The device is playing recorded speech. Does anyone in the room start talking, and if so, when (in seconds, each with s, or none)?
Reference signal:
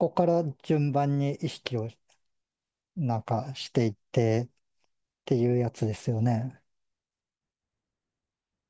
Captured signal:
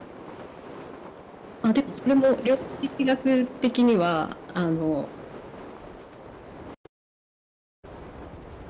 1.6 s